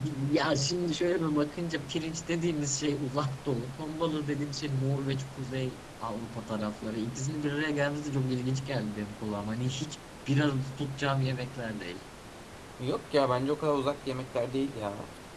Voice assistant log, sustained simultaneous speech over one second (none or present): none